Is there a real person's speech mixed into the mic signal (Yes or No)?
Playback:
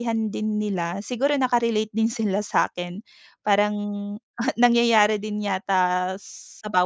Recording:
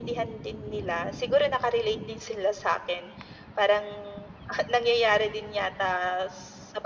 No